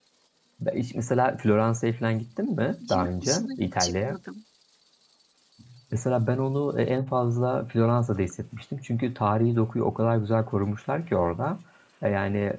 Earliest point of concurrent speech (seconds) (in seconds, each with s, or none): 2.8 s